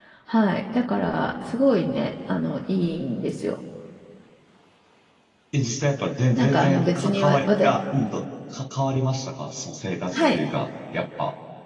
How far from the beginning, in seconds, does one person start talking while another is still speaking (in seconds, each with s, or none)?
6.4 s